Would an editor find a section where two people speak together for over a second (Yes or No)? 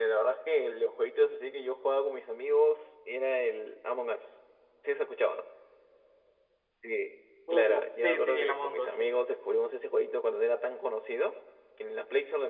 Yes